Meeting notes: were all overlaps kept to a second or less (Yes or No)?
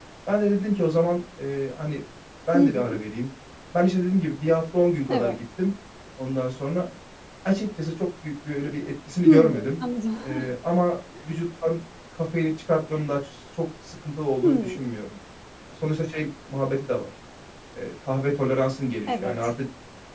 Yes